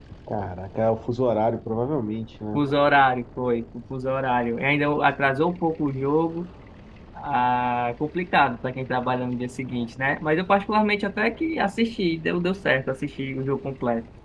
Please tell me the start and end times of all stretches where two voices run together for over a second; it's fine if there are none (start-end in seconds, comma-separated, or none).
none